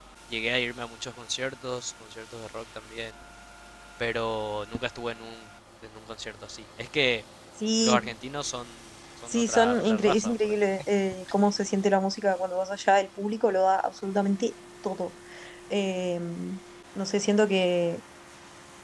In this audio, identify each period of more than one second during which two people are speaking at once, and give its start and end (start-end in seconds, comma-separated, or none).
9.3-10.5